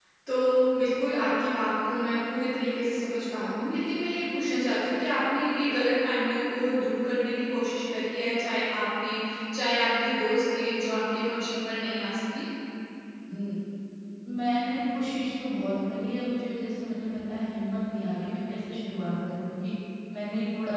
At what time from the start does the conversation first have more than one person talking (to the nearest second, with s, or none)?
none